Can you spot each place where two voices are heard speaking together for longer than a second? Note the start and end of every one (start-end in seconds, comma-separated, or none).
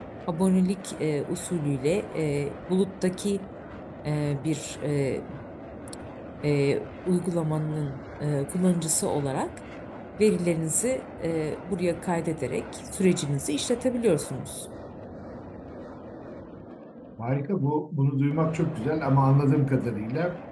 none